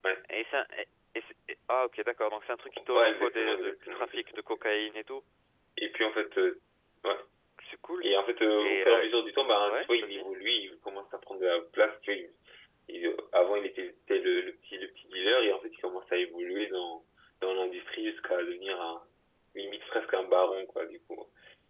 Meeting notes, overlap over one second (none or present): present